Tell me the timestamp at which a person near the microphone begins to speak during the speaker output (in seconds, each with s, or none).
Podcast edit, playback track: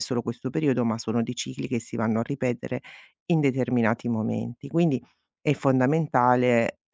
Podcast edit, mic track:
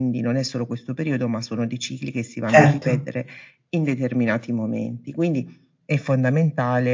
2.5 s